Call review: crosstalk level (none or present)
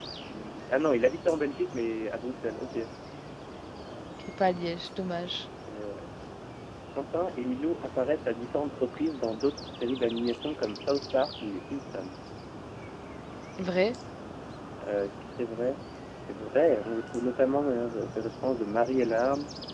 none